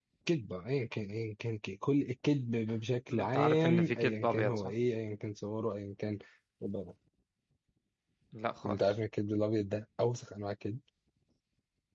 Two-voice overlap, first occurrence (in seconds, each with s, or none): 3.1 s